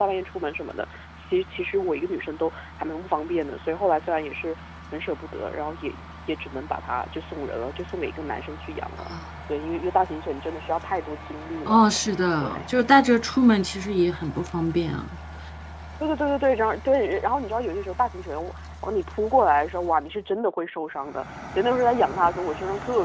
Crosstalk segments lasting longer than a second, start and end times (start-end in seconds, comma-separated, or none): none